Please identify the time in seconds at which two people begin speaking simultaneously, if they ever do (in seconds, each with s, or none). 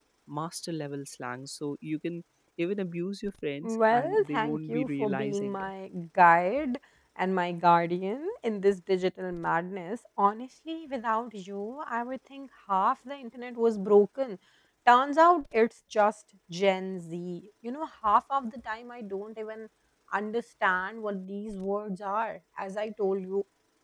3.6 s